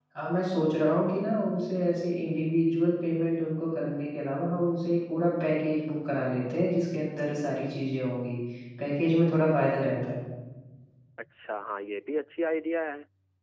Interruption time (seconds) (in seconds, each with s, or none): none